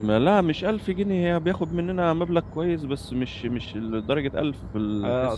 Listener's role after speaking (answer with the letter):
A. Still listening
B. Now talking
B